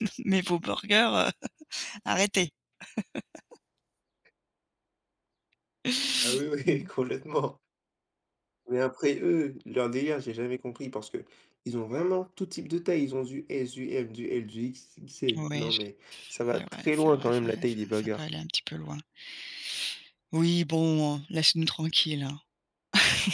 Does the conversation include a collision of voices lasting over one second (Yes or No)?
Yes